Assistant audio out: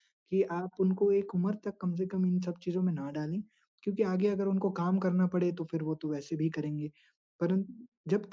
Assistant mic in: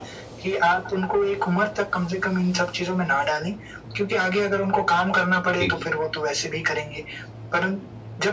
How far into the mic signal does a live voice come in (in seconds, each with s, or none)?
5.6 s